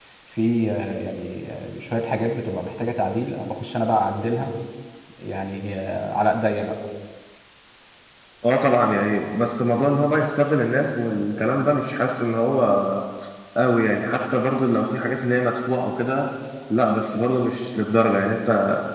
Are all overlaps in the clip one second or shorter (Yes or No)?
Yes